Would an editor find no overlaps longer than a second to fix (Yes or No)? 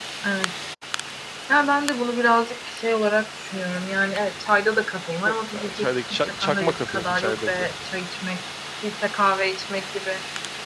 No